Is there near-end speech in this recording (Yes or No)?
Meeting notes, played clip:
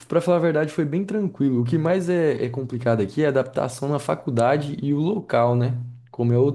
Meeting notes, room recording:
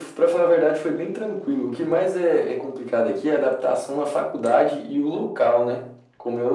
No